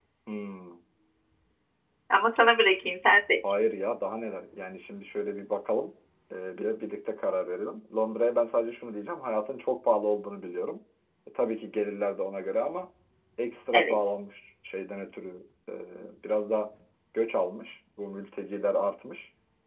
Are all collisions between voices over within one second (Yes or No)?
Yes